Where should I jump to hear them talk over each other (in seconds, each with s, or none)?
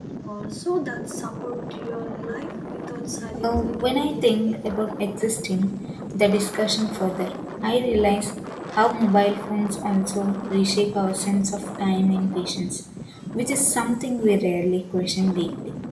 3.3 s